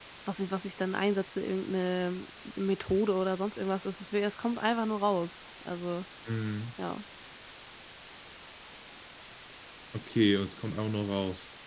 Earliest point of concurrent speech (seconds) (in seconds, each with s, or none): none